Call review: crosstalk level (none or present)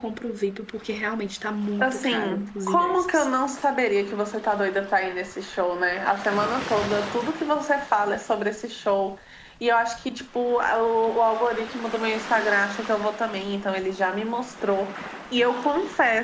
present